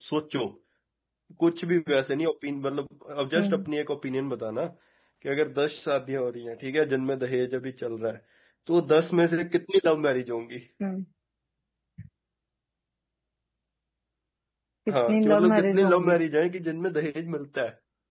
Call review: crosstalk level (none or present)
present